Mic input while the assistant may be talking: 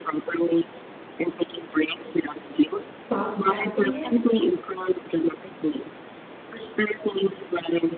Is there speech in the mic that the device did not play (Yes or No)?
Yes